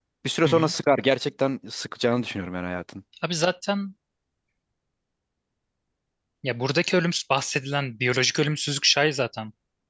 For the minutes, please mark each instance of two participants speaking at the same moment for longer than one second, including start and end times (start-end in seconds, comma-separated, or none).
none